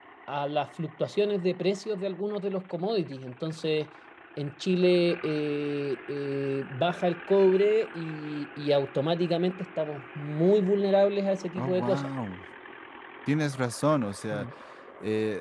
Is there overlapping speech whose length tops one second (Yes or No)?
No